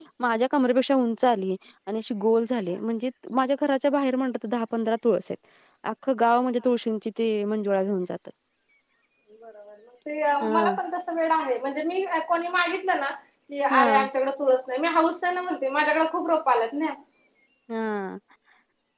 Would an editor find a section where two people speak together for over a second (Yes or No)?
No